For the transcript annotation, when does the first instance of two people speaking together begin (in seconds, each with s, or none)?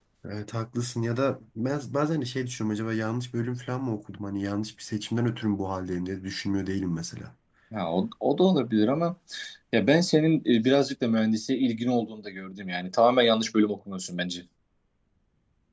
none